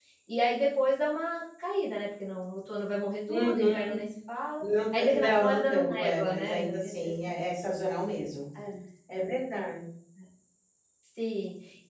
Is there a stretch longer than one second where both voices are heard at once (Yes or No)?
Yes